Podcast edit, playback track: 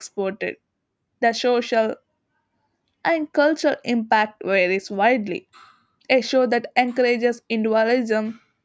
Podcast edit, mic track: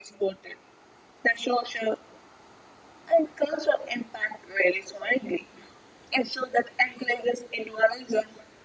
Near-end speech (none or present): none